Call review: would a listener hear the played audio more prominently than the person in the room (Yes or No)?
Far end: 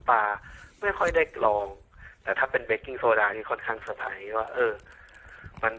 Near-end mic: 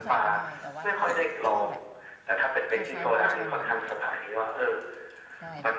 Yes